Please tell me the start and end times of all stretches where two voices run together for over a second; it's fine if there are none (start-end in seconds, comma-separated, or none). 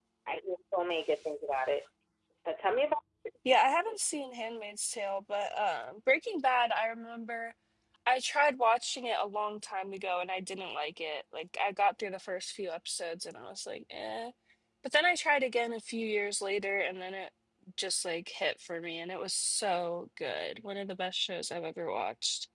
none